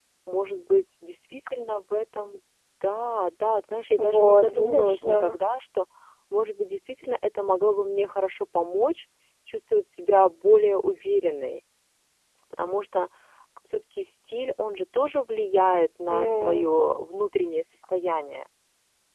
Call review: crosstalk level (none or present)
present